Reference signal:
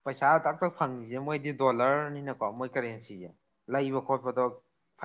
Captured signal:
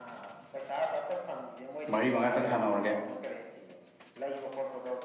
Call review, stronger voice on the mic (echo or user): user